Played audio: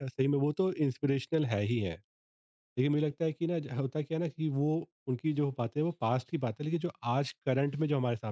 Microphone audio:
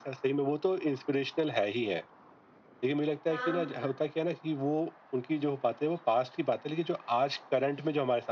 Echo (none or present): present